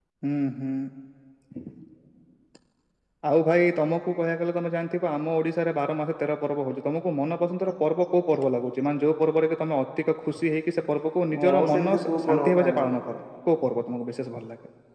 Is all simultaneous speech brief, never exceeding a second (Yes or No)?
No